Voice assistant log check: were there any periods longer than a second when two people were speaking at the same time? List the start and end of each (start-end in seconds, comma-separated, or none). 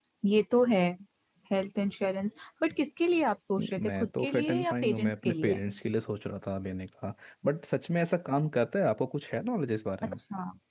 3.6-5.6